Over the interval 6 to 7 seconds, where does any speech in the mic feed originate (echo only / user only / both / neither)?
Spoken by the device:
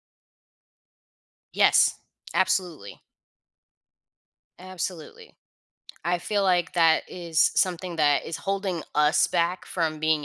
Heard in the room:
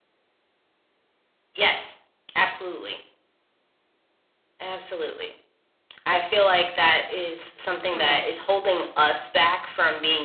echo only